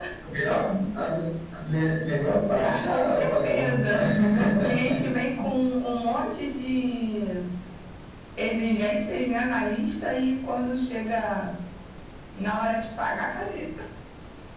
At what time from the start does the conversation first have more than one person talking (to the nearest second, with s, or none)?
3 s